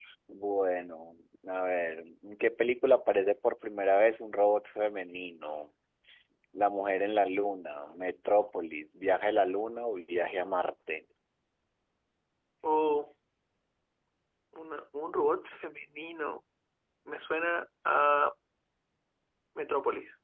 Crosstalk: none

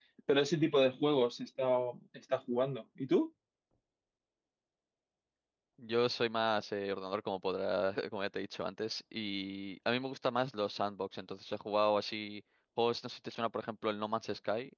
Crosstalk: none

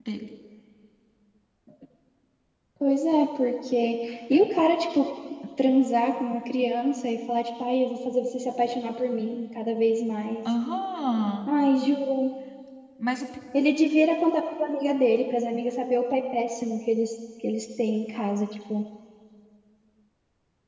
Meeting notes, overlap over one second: none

